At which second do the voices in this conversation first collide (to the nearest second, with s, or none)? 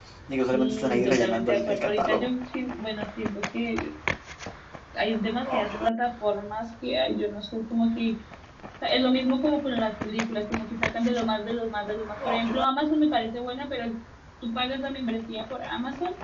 1 s